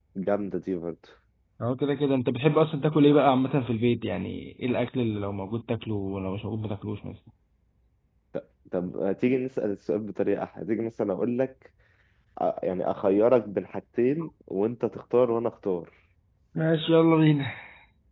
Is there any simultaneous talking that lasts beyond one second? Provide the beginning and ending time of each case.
none

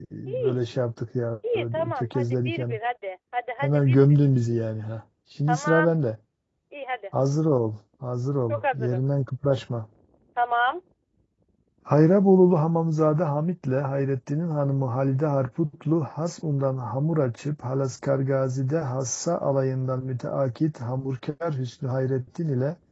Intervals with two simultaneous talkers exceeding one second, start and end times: 1.5-2.8

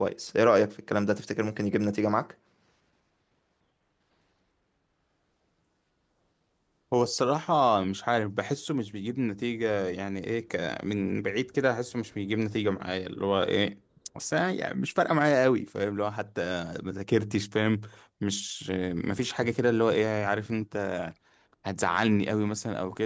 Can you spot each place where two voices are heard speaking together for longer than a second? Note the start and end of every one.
none

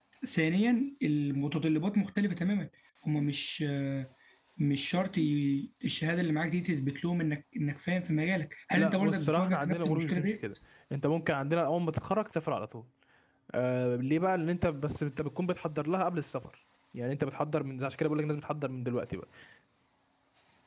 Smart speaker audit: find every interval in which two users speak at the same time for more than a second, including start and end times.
8.8-10.3

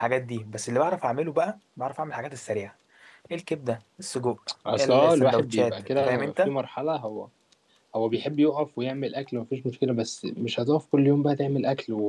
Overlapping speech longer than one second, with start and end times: 4.7-6.5

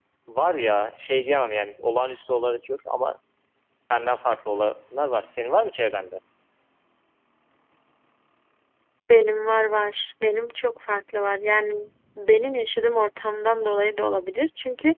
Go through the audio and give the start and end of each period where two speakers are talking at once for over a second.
none

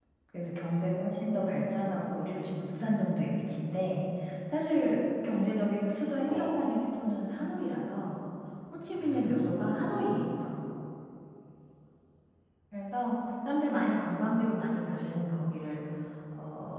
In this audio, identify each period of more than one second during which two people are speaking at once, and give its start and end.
8.9-10.2

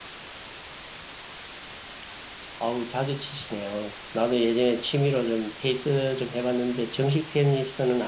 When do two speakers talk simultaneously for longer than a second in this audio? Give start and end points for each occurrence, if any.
none

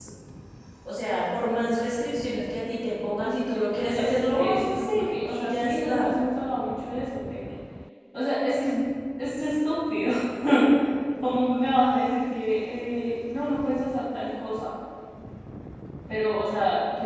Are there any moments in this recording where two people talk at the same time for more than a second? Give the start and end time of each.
3.9-6.1

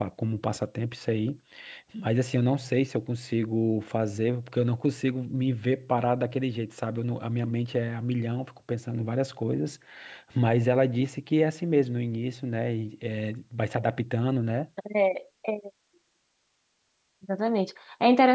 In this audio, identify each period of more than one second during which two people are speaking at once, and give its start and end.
none

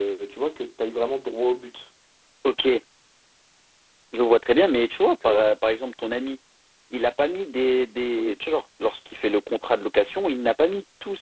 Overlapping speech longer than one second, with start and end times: none

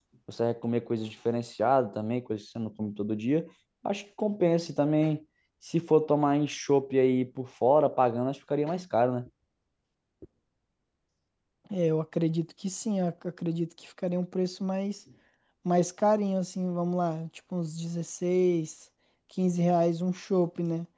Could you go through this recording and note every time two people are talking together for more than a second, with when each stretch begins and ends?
none

